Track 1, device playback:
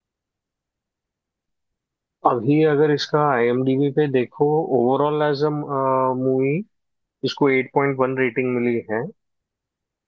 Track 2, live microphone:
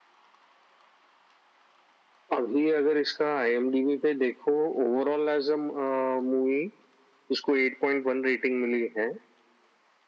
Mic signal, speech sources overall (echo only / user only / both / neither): echo only